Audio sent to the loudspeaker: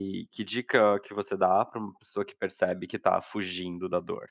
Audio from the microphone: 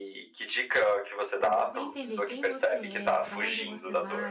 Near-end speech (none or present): present